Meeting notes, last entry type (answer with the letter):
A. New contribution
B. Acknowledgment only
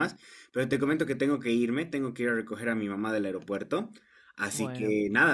B